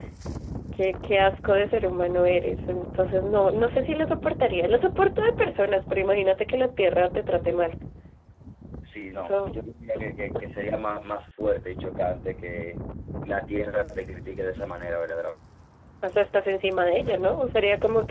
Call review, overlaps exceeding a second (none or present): none